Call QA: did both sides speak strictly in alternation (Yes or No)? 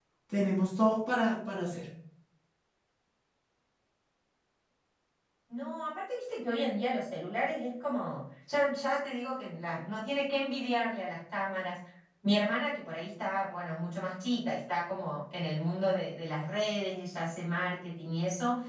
Yes